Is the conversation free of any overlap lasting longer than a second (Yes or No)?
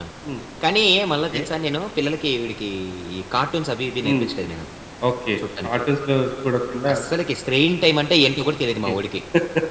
Yes